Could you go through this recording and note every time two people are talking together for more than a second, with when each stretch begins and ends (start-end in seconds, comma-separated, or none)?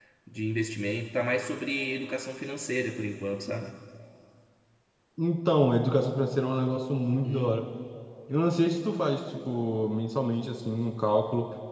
none